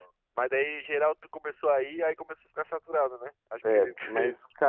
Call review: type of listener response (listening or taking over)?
taking over